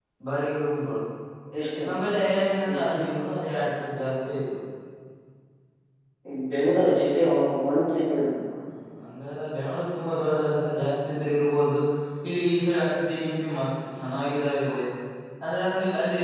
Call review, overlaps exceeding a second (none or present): none